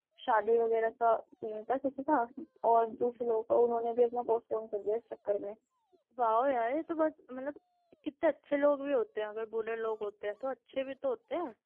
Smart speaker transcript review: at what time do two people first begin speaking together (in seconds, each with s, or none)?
none